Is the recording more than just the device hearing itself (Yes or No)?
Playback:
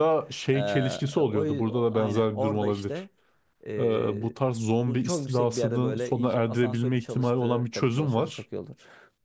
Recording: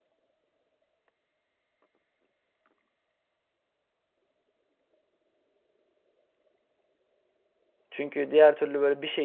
Yes